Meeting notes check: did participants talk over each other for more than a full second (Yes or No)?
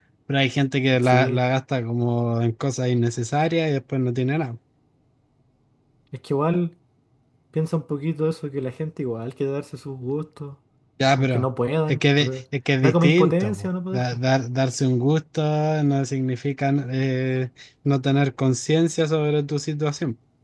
Yes